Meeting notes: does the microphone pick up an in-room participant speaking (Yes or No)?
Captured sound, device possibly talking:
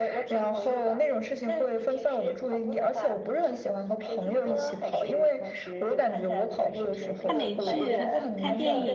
Yes